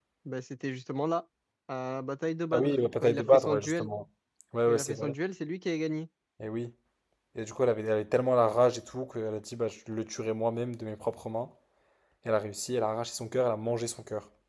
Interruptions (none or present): present